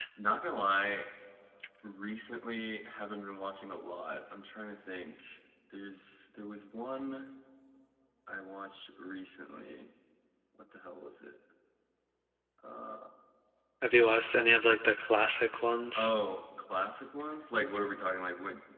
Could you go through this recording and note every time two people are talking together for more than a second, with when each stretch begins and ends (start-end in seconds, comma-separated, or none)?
none